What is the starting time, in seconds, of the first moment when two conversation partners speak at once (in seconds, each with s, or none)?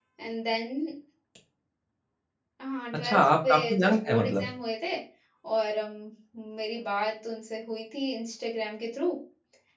3.0 s